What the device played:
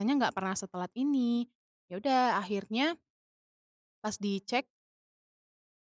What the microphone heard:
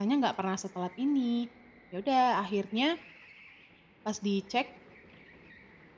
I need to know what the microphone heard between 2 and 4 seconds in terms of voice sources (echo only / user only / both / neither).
echo only